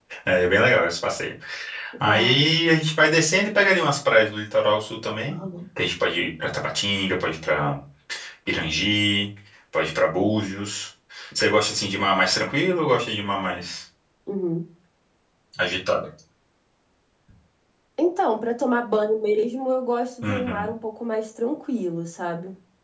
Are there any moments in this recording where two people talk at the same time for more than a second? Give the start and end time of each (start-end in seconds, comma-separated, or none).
none